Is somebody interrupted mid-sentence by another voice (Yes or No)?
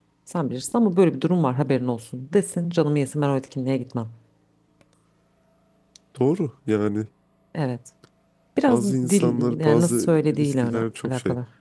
Yes